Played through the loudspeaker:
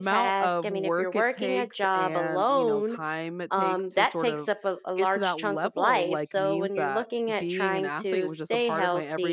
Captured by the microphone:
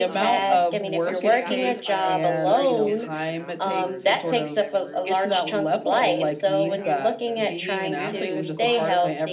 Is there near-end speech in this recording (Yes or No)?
Yes